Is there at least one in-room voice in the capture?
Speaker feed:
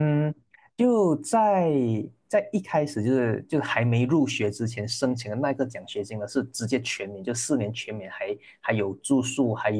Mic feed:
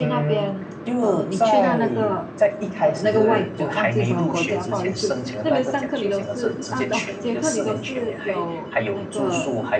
Yes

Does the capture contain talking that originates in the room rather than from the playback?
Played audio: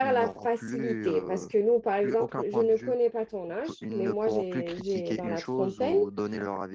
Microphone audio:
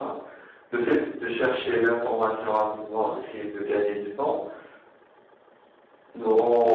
Yes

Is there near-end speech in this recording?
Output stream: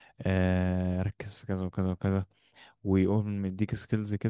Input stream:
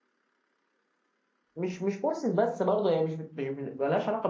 Yes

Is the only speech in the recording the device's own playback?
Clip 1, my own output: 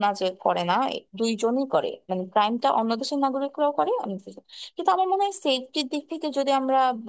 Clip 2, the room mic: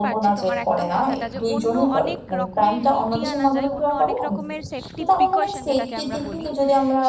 No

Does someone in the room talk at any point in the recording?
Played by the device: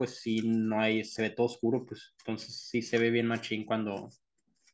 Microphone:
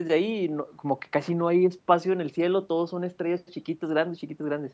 Yes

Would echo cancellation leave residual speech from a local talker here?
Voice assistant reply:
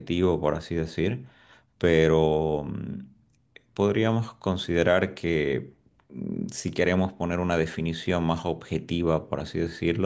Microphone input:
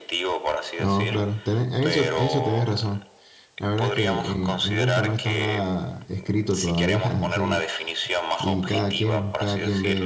Yes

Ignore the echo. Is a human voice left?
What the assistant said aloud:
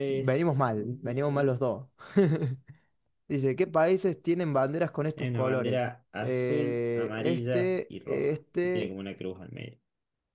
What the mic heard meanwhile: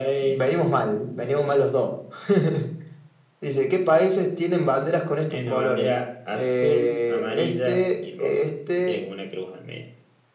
No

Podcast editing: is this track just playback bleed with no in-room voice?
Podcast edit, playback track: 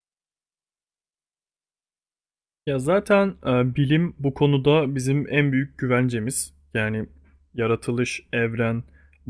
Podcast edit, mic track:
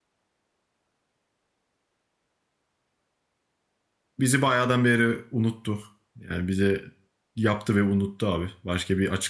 No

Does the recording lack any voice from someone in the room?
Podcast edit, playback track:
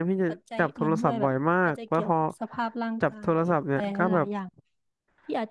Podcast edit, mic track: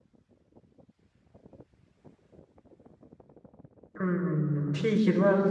No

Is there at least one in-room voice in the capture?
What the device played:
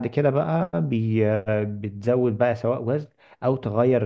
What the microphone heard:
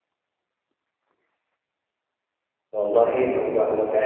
Yes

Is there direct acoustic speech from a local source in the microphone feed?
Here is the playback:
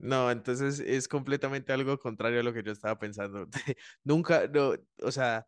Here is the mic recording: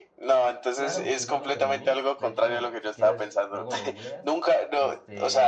Yes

